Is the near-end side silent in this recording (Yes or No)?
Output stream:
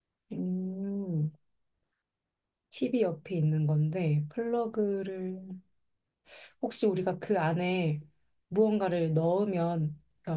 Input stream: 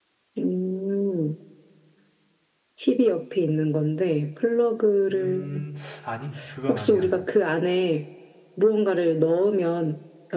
No